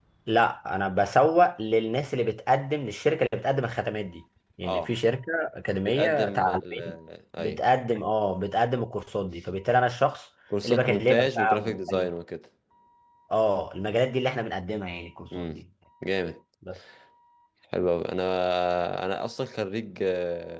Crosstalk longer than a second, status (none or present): present